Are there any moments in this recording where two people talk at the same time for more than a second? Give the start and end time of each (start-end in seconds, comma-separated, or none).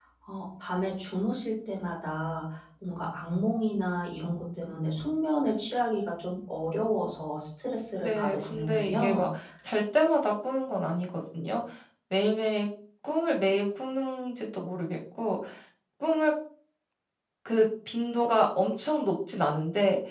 8.0-9.3